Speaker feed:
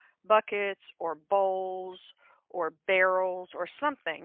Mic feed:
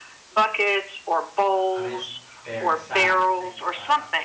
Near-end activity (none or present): present